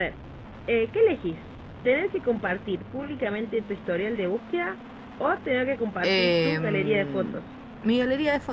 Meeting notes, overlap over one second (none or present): present